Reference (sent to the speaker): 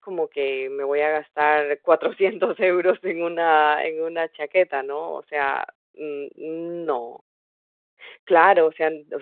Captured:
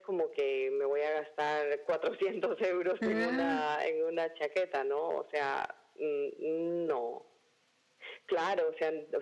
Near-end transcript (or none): Ah.